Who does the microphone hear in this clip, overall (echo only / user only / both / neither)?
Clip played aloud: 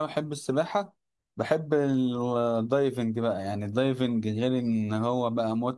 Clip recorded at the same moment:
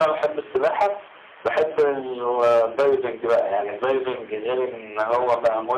echo only